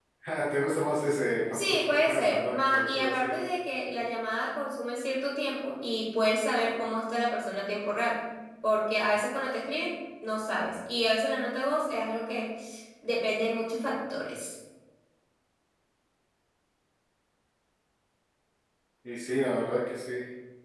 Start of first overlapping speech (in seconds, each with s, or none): 1.5 s